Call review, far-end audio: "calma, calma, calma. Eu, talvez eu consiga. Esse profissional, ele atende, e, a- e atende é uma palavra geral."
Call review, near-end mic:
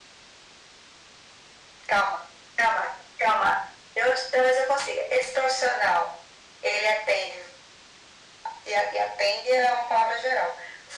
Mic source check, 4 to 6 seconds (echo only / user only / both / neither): echo only